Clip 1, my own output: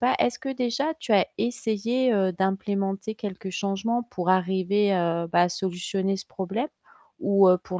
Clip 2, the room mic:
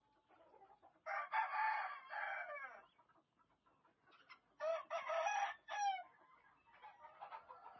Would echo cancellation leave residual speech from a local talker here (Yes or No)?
No